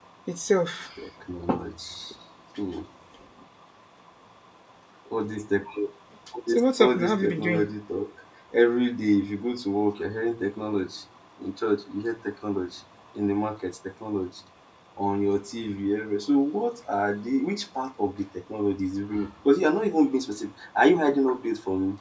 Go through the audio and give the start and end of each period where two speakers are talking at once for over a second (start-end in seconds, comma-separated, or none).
6.5-7.7